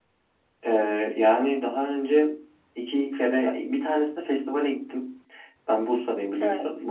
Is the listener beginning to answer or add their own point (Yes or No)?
No